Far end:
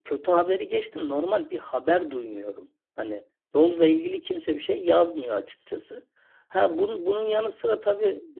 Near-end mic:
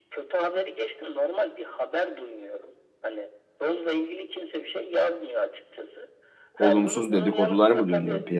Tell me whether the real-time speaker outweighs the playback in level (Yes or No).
Yes